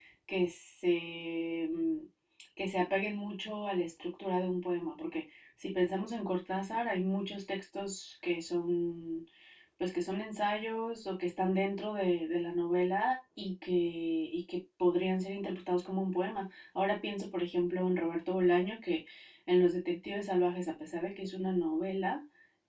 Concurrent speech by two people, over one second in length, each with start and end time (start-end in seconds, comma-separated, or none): none